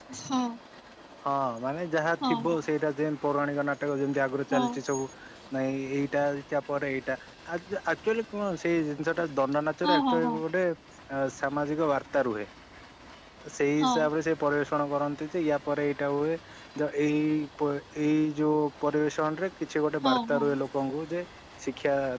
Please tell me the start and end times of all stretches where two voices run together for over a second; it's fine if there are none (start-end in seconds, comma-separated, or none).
none